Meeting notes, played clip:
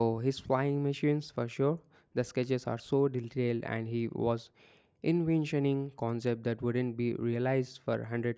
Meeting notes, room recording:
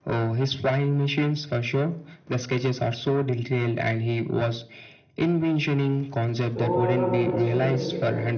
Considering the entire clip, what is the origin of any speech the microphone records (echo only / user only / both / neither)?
both